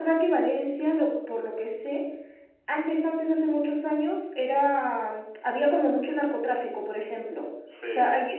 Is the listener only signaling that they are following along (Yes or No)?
Yes